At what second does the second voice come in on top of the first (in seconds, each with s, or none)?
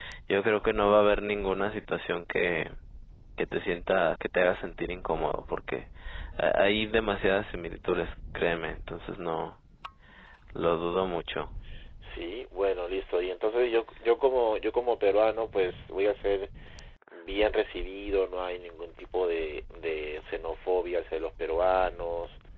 none